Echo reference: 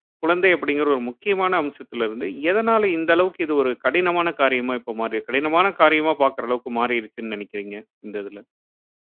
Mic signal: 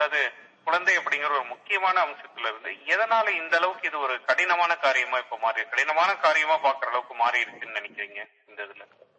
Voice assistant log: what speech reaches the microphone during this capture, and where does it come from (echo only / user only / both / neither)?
echo only